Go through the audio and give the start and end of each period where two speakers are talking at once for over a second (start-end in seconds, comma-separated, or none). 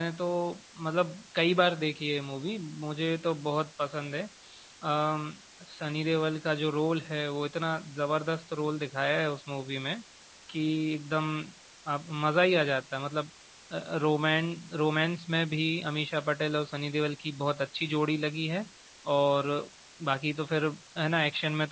none